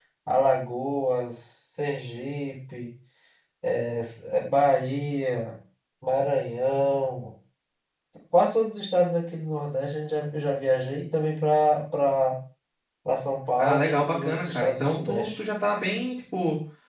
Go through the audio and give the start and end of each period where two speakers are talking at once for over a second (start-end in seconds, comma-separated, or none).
13.6-15.4